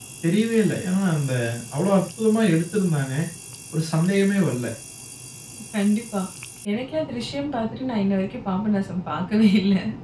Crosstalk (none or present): none